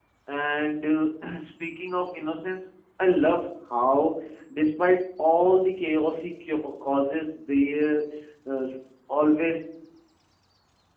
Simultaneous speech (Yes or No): No